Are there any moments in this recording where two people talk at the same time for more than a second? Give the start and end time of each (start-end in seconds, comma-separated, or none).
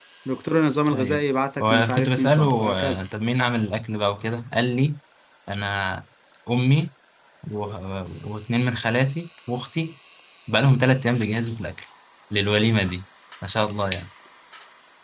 1.6-3.0